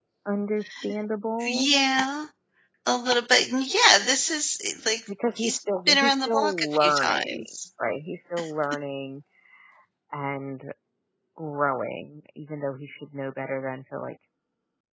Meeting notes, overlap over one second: present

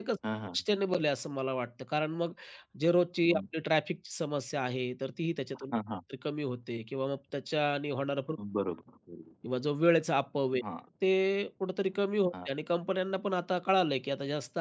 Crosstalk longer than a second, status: none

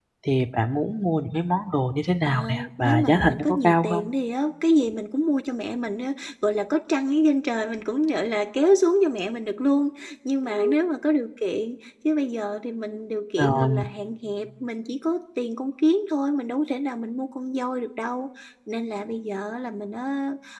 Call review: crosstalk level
present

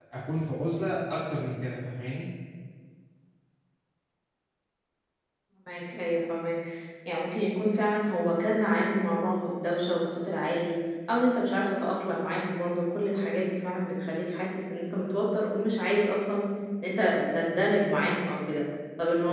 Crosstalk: none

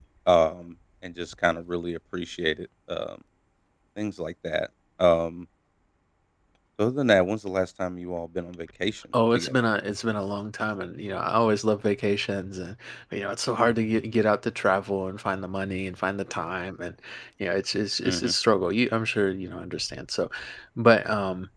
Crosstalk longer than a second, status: none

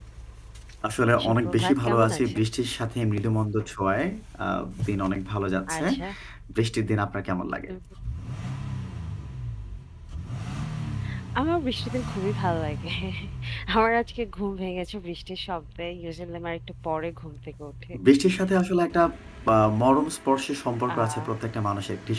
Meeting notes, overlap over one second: present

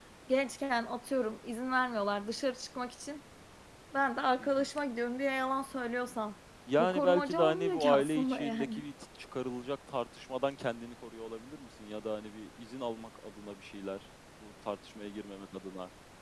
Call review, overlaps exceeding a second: present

